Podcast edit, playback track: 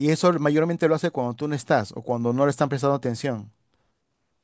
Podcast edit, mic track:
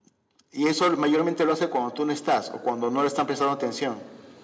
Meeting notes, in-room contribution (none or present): none